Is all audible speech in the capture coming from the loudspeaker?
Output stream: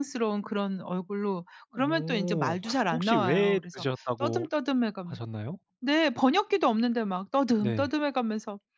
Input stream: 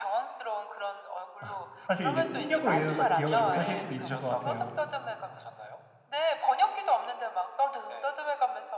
No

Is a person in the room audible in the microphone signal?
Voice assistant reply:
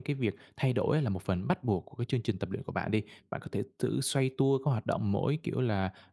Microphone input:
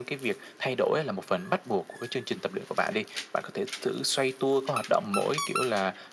No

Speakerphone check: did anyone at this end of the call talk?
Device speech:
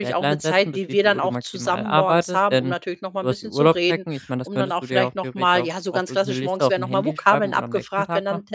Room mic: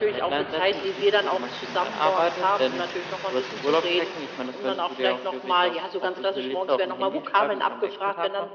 No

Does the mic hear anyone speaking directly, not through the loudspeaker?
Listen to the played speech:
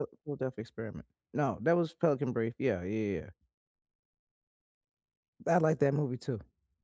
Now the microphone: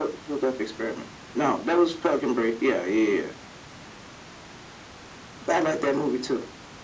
No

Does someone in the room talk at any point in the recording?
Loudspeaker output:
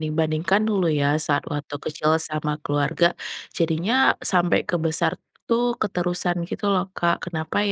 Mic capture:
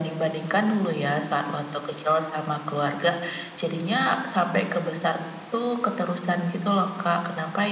No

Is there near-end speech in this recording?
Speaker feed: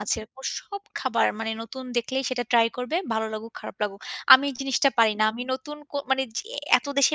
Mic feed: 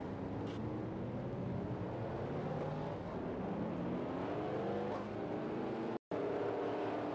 No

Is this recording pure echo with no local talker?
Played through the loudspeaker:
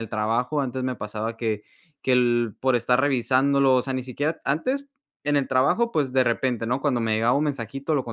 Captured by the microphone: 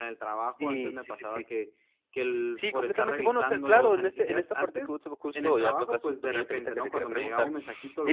No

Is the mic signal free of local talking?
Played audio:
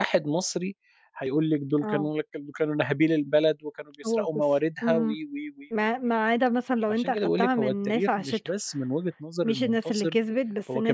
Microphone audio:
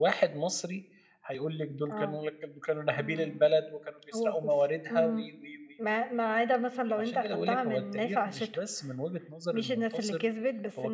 No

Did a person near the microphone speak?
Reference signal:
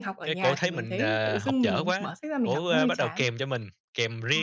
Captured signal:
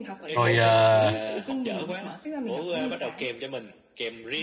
Yes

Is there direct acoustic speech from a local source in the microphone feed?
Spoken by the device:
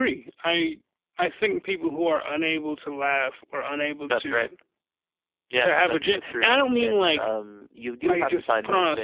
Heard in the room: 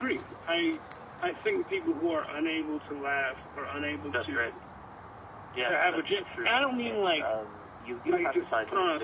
No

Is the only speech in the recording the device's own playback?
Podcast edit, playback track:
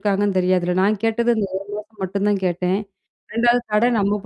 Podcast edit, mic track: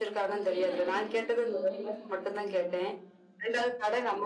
No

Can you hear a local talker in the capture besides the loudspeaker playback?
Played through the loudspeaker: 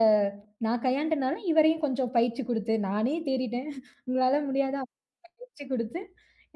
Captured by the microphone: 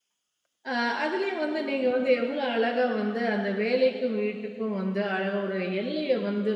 Yes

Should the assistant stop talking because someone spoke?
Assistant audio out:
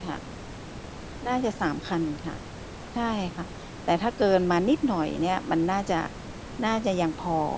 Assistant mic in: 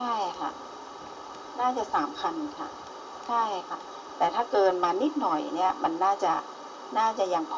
No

